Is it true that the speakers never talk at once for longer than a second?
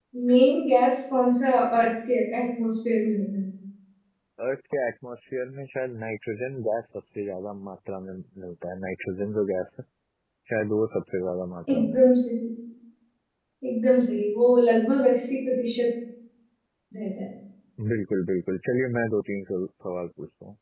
Yes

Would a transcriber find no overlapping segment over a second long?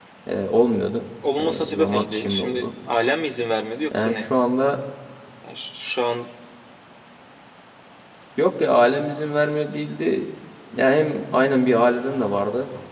No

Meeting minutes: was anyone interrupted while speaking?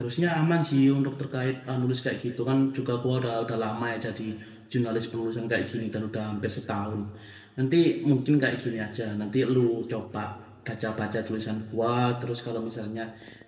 No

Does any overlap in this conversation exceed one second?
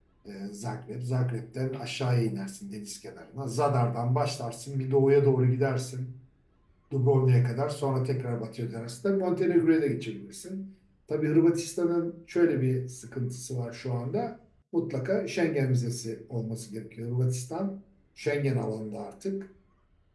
No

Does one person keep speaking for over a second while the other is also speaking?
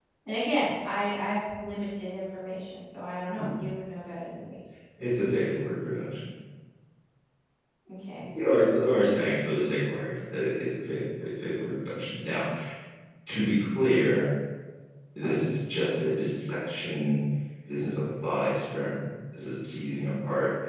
No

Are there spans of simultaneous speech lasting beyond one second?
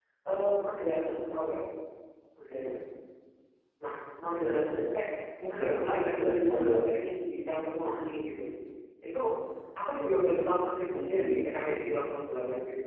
Yes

